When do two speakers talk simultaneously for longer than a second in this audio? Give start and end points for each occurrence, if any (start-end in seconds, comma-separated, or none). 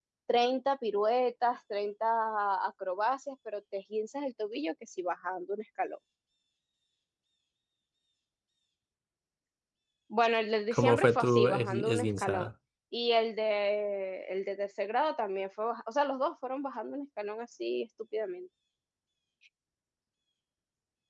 10.7-12.5